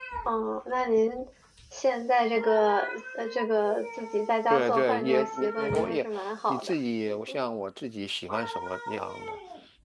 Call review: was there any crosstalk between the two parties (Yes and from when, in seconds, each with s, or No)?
Yes, from 4.5 s